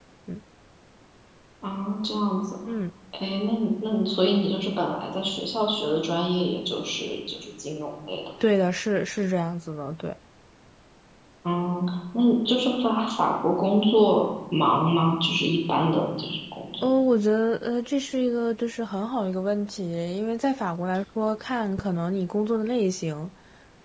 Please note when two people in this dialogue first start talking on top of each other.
none

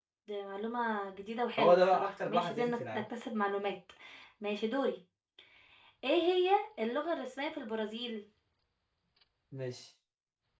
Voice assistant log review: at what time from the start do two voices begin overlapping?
1.6 s

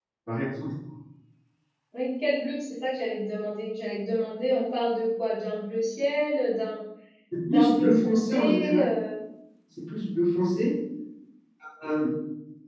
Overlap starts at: 7.5 s

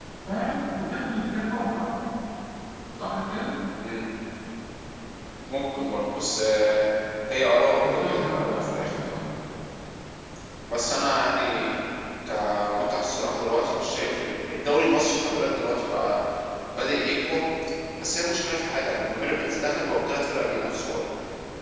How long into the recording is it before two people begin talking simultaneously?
7.8 s

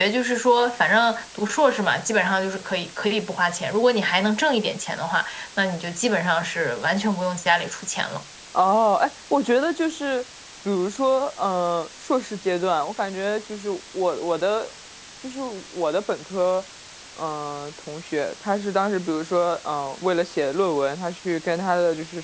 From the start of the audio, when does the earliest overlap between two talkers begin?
none

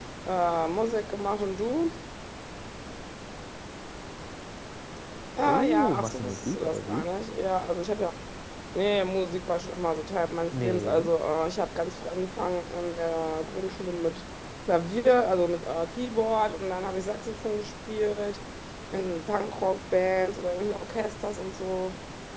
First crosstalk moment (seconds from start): 5.4 s

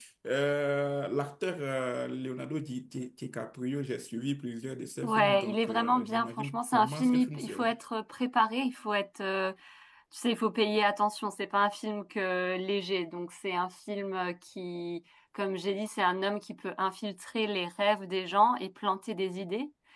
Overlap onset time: 5.0 s

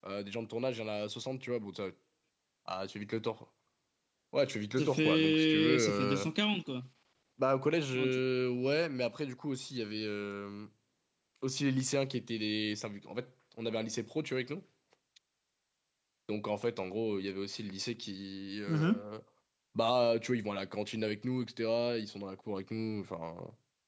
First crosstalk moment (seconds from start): 4.8 s

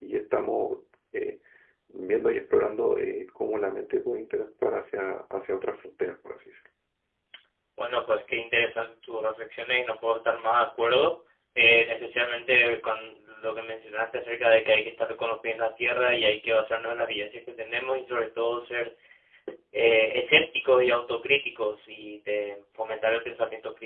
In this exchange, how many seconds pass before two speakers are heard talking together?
none

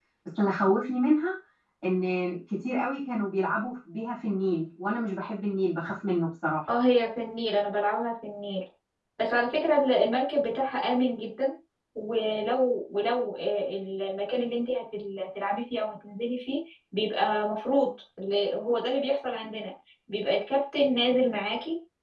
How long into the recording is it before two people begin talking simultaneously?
none

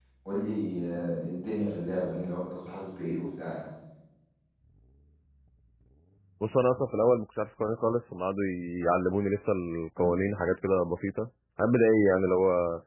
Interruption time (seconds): none

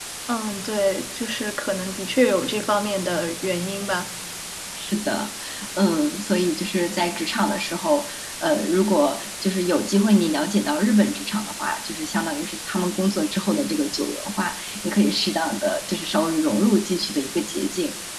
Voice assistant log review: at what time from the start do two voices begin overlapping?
none

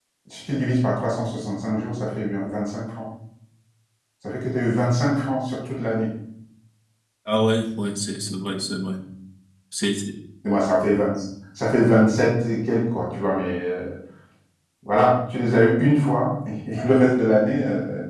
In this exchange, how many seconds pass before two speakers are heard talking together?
none

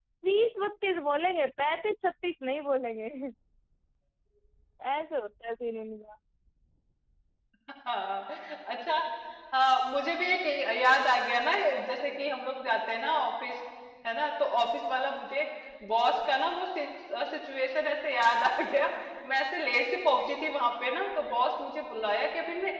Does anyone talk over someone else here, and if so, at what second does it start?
none

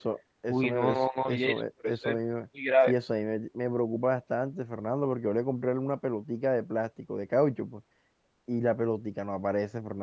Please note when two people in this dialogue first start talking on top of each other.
0.5 s

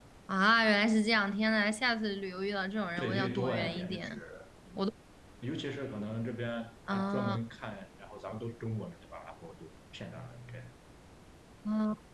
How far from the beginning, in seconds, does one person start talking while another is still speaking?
3.0 s

